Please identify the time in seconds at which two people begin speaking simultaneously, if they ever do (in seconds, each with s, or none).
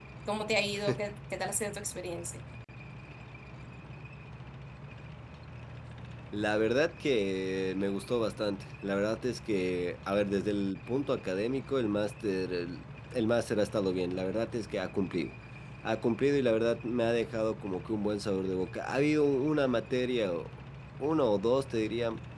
none